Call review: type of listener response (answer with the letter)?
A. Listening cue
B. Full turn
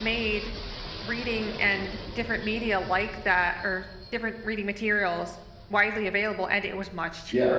B